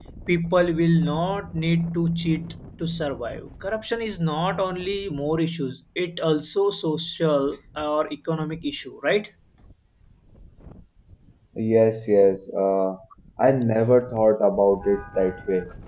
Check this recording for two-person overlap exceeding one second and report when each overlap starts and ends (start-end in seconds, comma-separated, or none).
none